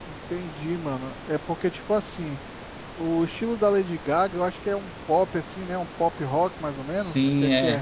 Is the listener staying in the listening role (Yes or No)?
No